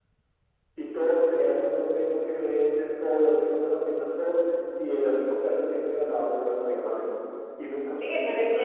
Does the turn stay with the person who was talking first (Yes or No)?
No